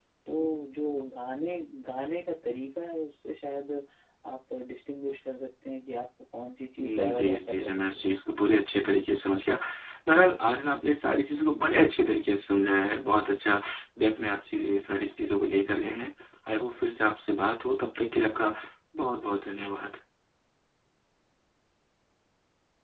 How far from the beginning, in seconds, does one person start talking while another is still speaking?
6.8 s

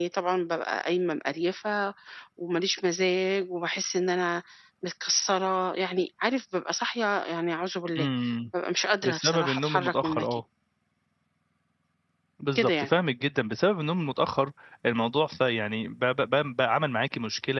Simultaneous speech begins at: 9.0 s

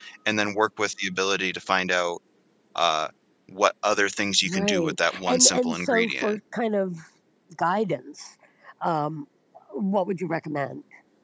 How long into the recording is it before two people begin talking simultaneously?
4.4 s

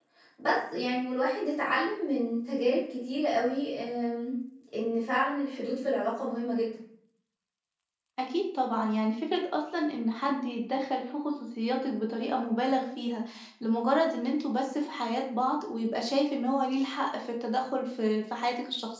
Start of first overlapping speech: none

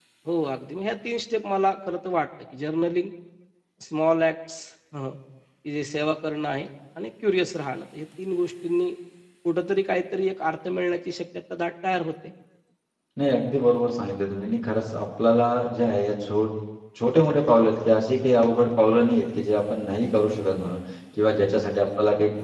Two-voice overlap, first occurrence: none

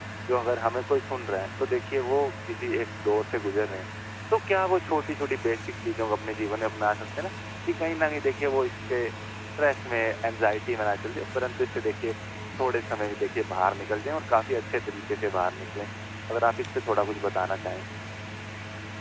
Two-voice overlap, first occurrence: none

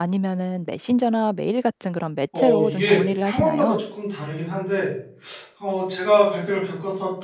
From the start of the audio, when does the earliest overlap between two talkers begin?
2.3 s

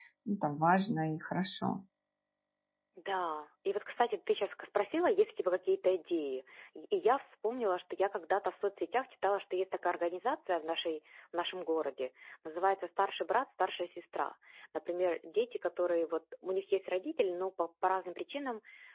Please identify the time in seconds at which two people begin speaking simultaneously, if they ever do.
none

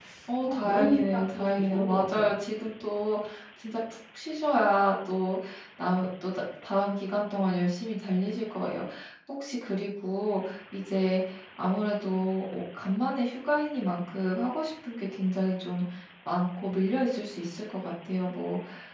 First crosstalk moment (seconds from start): 0.5 s

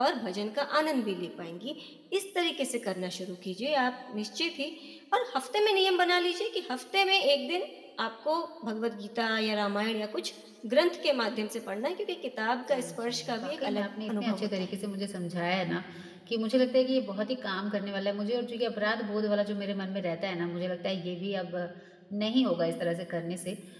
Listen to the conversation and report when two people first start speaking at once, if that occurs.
12.7 s

